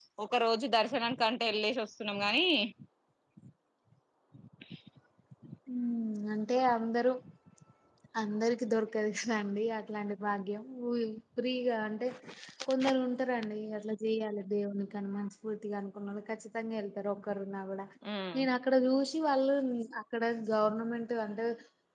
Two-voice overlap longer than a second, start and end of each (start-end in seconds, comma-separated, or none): none